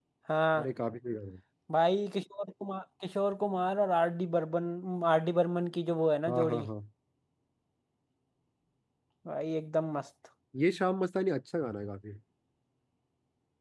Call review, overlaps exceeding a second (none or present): none